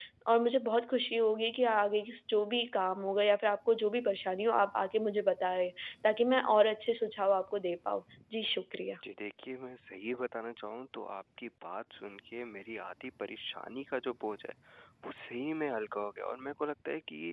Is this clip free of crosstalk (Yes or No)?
Yes